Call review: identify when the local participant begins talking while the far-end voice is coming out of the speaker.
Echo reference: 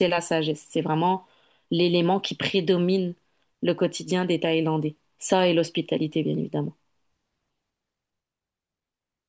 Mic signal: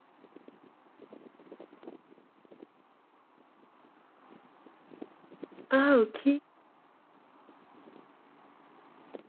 6 s

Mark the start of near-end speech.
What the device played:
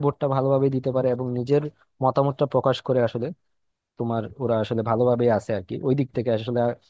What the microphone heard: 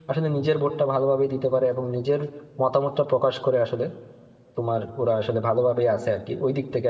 none

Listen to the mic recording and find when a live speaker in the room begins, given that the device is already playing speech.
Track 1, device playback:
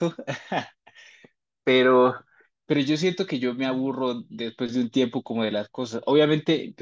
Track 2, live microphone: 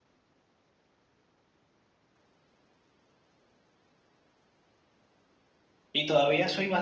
6 s

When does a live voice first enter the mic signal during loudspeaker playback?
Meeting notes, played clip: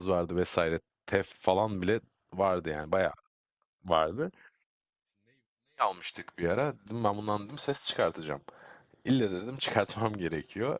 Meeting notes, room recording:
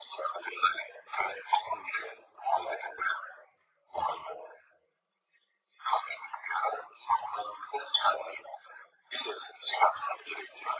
none

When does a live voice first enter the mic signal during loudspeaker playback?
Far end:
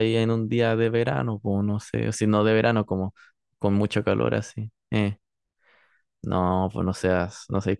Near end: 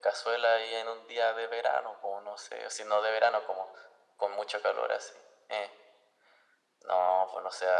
none

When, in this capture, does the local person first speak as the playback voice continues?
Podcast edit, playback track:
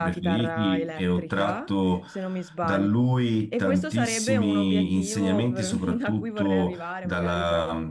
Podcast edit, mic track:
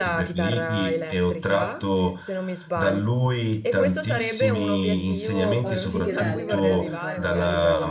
6 s

